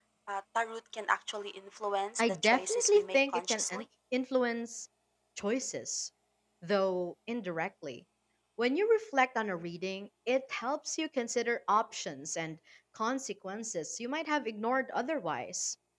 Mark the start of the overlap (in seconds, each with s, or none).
2.2 s